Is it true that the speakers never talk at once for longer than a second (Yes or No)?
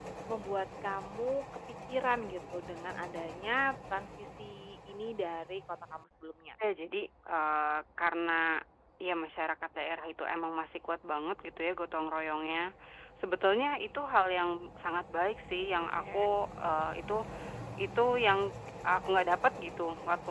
Yes